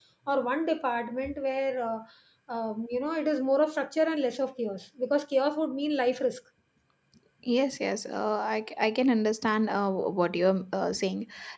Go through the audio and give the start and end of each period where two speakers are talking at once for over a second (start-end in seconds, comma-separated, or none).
none